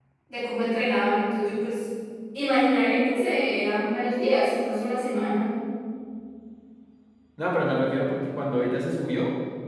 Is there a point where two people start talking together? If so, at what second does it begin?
none

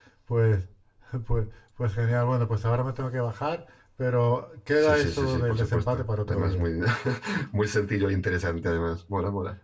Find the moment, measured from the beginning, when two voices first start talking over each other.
4.8 s

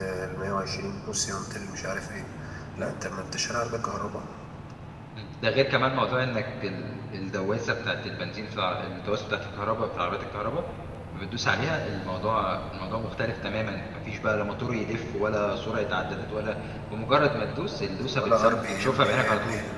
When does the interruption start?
18.1 s

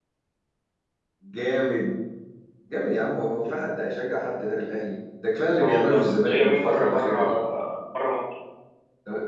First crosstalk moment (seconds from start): 5.6 s

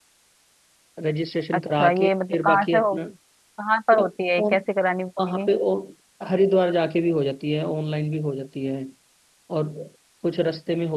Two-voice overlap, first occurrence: 1.5 s

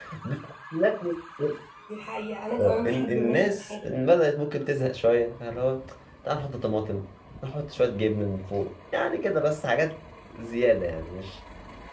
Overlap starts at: 2.6 s

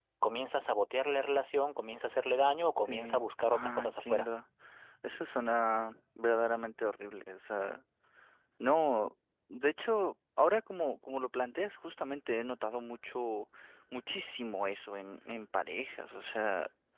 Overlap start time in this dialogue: 2.9 s

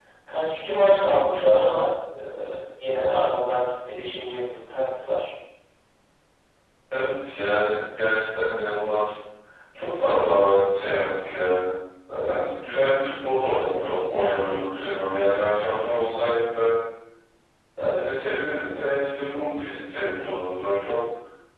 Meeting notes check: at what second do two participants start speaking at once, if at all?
none

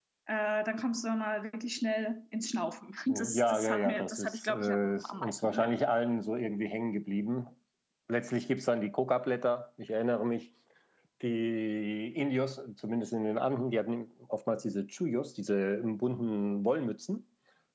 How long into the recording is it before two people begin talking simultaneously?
3.1 s

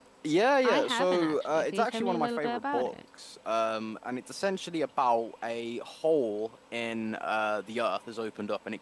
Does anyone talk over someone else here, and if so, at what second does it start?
0.6 s

